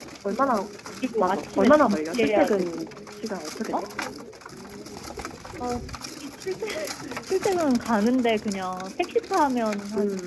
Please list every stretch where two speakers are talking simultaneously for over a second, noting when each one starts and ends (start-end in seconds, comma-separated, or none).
1.2-2.9